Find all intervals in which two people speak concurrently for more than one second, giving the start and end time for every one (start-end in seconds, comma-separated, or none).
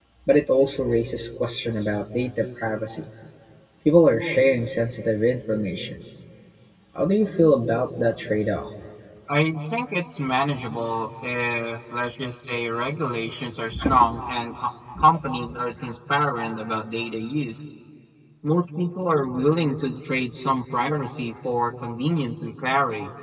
none